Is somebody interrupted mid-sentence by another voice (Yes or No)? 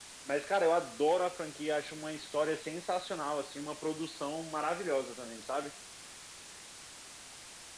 No